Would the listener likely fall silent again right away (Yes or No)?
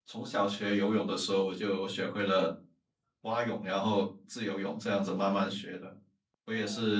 Yes